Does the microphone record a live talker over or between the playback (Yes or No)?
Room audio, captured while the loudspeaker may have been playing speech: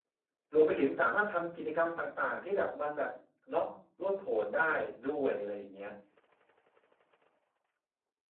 Yes